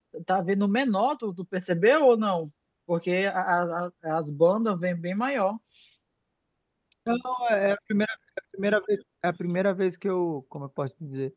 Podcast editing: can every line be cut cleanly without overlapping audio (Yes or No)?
Yes